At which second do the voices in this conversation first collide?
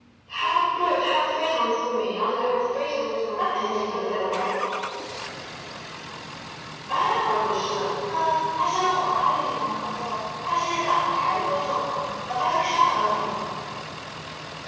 3.4 s

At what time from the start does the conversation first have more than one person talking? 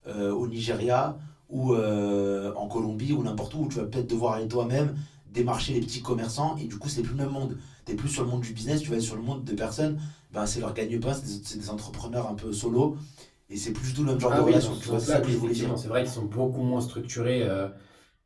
14.3 s

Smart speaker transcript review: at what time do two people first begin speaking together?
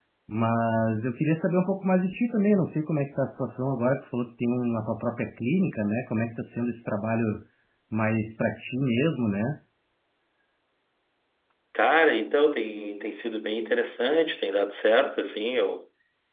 none

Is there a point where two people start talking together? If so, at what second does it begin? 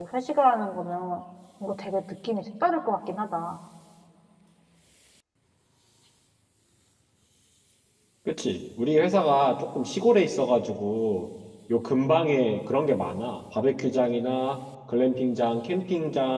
none

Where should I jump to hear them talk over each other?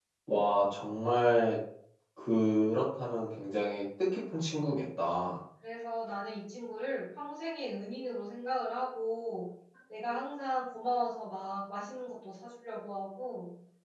none

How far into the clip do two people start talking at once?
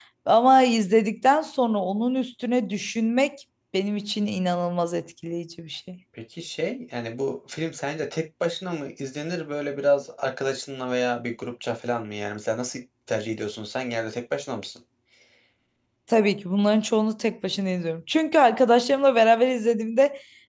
none

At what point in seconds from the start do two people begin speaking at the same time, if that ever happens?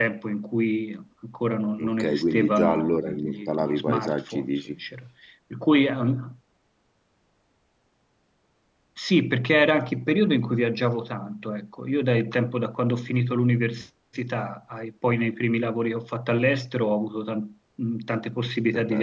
1.8 s

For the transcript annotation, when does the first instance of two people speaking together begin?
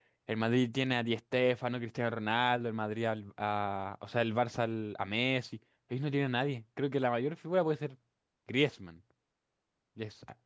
none

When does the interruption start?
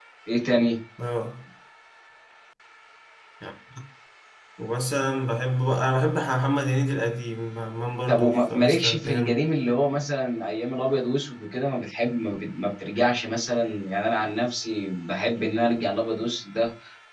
8.1 s

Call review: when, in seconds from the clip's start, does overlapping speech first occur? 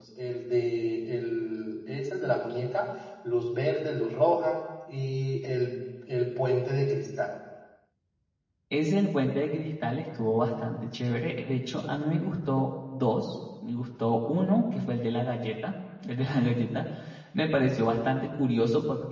none

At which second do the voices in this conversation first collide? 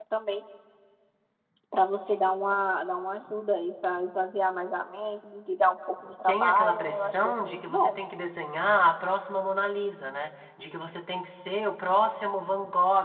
6.3 s

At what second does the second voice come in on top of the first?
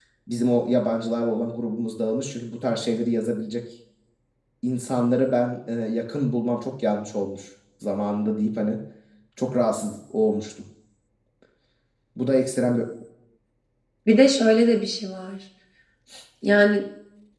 none

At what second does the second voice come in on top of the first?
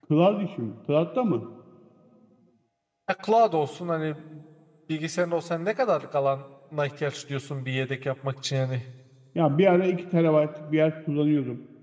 none

